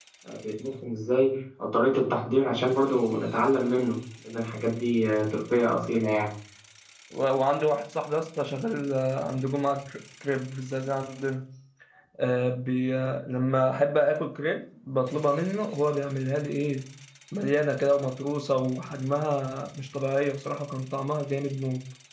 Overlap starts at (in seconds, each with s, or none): none